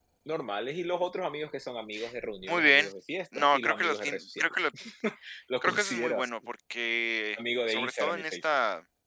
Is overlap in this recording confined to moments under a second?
No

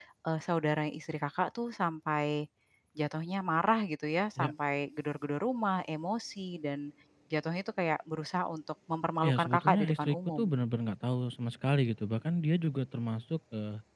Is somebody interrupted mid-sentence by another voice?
Yes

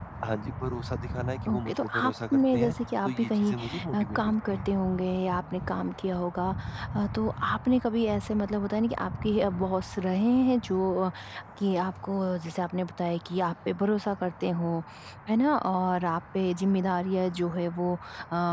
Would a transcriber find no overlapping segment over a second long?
No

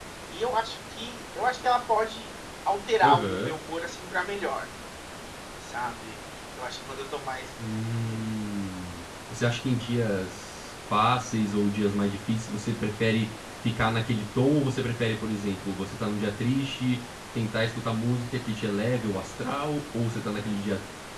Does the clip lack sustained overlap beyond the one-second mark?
Yes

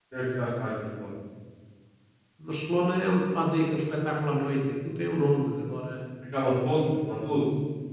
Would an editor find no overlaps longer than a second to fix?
Yes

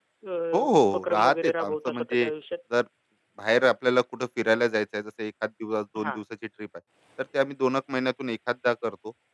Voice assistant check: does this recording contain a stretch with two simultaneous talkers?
Yes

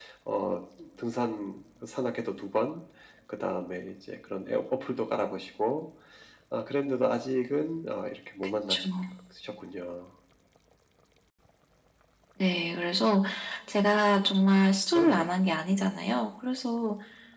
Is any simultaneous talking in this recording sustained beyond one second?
No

